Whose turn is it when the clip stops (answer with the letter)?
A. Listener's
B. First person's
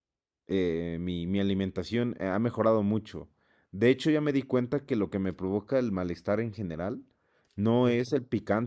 B